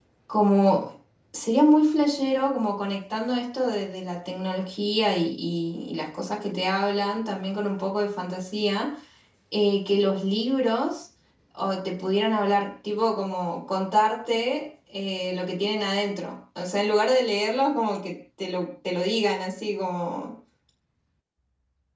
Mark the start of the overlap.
none

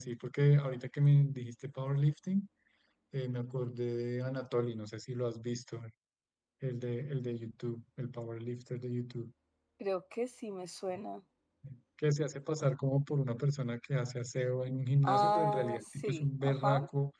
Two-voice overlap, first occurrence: 15.0 s

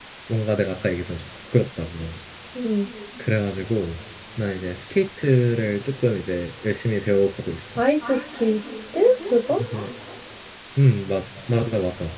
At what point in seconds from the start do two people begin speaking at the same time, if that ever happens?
none

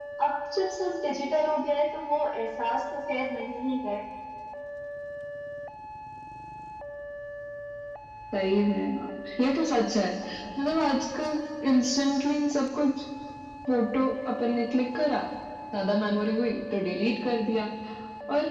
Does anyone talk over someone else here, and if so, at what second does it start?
none

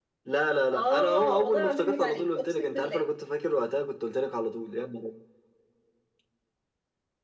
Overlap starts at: 0.7 s

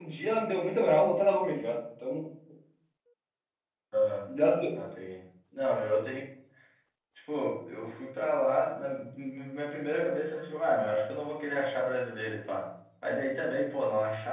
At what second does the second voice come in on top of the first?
none

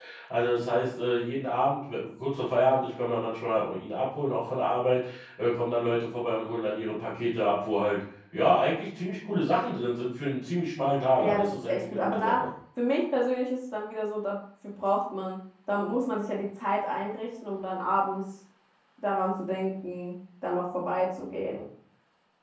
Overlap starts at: 11.2 s

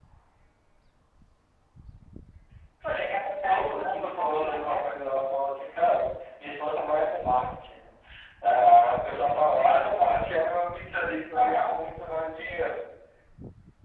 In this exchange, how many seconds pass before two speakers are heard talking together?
2.8 s

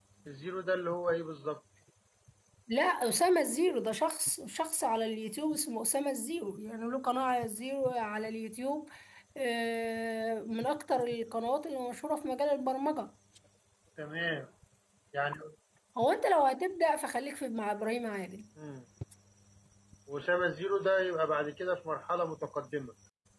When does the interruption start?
none

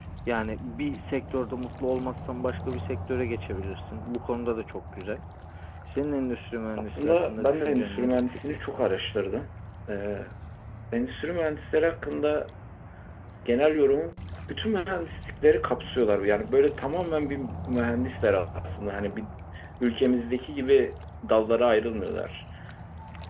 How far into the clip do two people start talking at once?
6.8 s

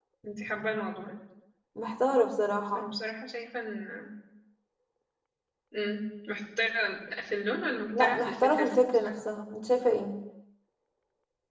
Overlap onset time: 7.9 s

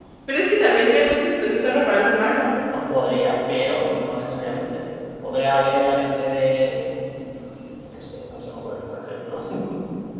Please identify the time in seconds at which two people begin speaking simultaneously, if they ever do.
none

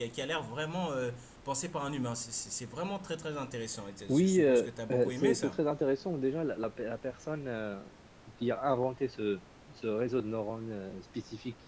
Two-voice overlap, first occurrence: 4.1 s

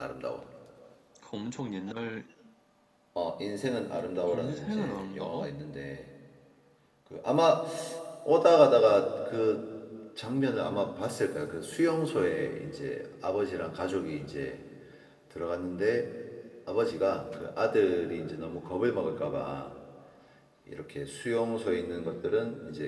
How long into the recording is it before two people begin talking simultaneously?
4.3 s

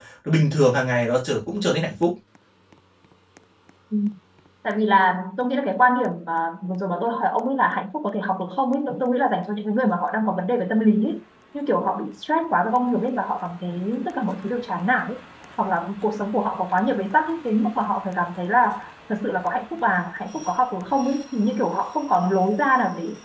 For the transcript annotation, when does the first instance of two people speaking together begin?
none

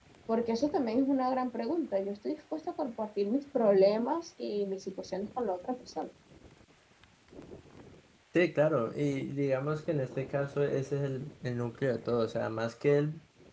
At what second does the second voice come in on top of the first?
none

